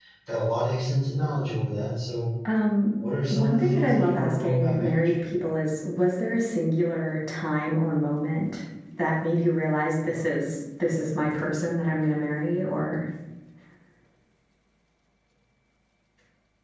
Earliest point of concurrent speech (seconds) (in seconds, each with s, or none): 3.3 s